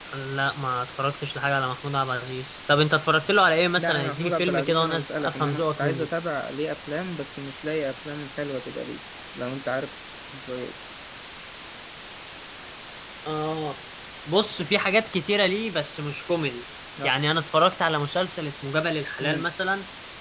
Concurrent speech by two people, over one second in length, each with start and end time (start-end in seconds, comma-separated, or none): 3.8-6.1